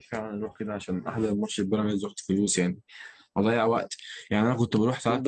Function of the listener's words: listening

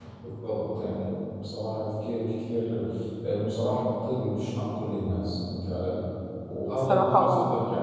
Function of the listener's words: listening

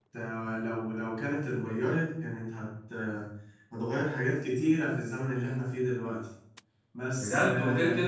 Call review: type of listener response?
taking over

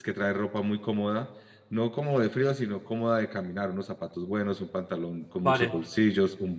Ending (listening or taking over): listening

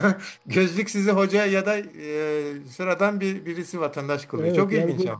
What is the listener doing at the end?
taking over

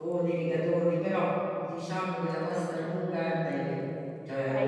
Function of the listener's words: taking over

